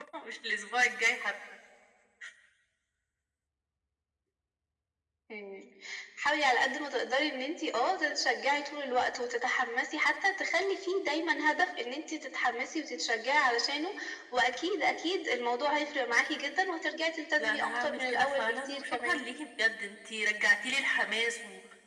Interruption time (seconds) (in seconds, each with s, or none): 17.4 s